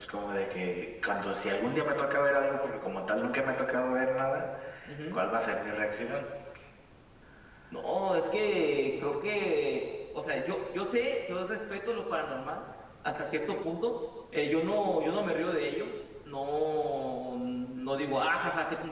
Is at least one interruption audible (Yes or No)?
No